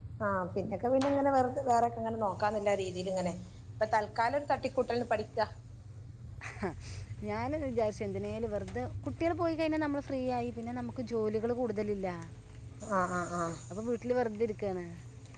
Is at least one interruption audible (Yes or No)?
No